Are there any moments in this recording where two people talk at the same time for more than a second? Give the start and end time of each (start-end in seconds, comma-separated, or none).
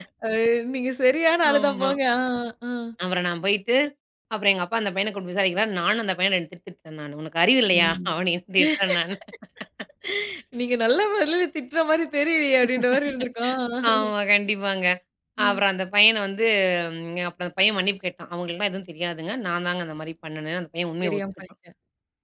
none